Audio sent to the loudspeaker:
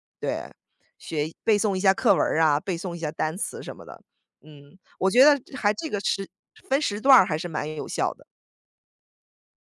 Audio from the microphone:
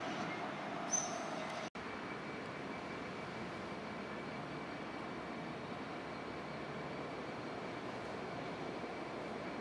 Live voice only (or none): none